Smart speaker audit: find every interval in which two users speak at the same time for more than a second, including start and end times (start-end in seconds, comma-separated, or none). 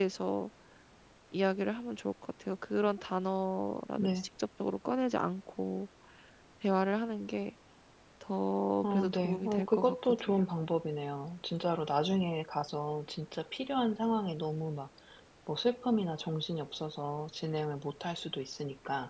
8.8-10.3